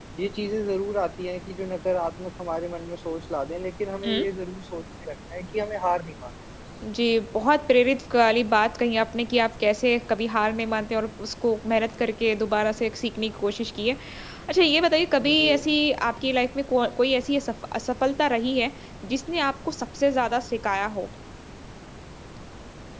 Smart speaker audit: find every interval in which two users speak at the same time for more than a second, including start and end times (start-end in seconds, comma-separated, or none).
none